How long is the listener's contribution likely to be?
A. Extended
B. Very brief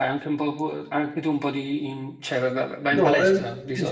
A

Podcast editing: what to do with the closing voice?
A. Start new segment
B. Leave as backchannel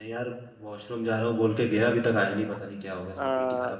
A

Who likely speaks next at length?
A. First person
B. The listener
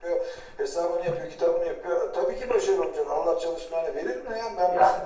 A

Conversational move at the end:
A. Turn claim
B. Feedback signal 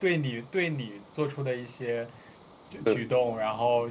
B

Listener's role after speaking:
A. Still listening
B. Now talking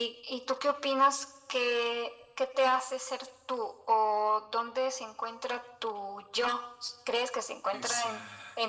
A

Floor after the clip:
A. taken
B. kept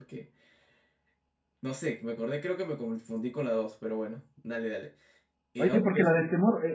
A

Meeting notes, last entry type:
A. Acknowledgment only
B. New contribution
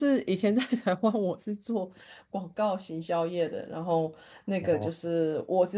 A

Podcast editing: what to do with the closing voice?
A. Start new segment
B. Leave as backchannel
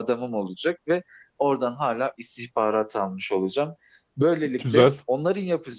B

